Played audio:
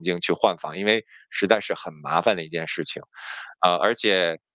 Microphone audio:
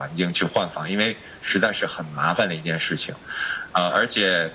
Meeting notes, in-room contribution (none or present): none